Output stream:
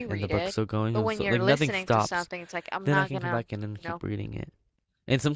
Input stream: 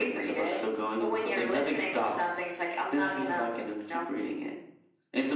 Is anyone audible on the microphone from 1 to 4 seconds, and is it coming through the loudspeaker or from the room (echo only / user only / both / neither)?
echo only